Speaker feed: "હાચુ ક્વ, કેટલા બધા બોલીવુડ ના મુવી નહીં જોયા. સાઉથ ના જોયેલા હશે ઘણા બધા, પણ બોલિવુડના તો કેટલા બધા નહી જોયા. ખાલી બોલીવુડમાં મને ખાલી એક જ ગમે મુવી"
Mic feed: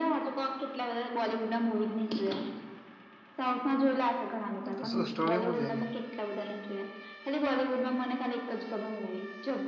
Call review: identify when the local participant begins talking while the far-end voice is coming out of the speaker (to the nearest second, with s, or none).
5 s